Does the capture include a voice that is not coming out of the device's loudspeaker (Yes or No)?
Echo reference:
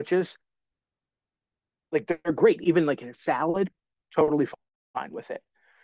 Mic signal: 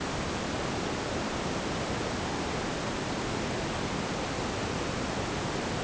No